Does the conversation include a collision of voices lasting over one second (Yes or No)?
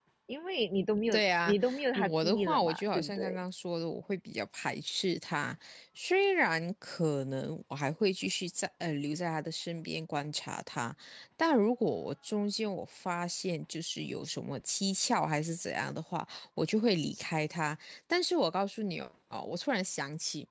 Yes